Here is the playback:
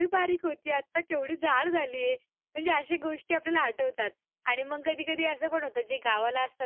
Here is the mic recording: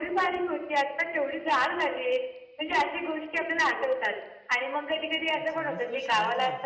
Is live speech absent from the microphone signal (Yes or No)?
No